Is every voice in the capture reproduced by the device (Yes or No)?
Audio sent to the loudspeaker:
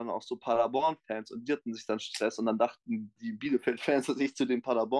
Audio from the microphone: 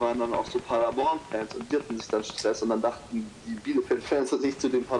Yes